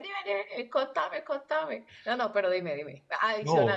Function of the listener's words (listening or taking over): listening